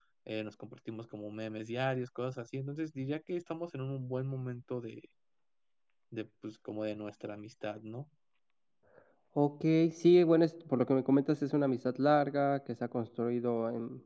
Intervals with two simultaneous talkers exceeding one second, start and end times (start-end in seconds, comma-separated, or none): none